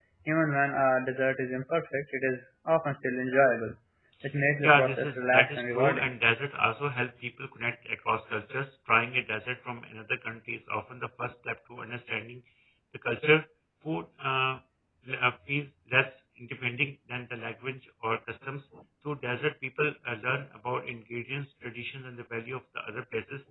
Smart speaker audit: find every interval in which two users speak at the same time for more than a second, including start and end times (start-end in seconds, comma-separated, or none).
4.6-6.1